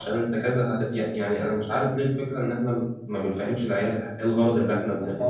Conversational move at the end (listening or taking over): taking over